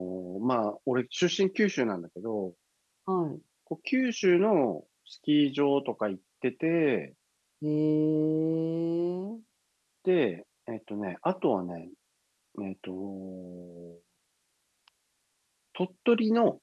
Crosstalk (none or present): none